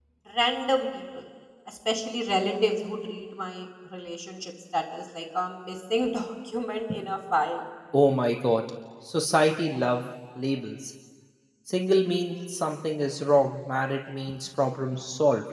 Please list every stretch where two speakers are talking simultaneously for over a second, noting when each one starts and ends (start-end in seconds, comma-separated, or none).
none